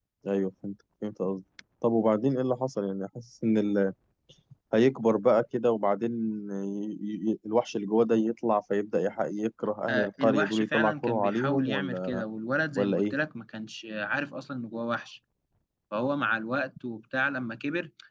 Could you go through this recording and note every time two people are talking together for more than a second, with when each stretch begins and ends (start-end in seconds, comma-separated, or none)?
9.9-12.2